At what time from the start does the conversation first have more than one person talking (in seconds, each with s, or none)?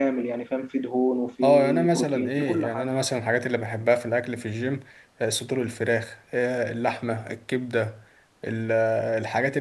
1.4 s